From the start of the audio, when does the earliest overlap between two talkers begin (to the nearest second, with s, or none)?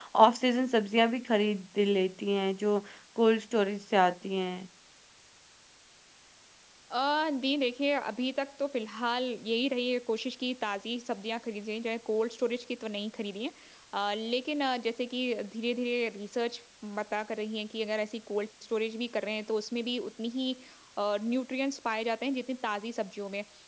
none